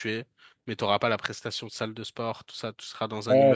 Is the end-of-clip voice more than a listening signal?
Yes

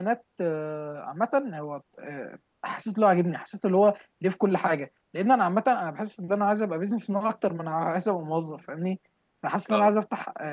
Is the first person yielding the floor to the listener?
No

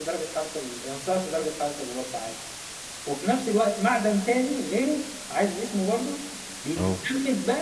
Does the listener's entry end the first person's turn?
No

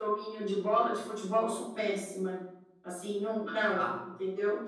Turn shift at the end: No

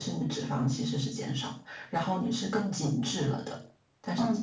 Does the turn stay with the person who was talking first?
No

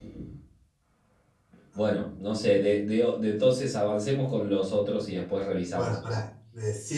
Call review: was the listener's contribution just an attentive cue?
No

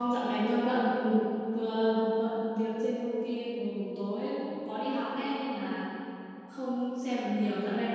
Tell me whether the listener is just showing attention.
Yes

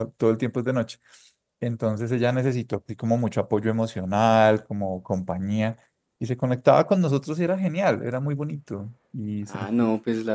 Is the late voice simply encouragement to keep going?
No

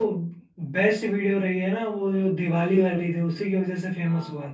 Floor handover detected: Yes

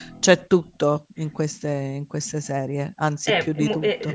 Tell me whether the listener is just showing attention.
No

